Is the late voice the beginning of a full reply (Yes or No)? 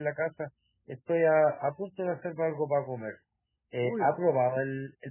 No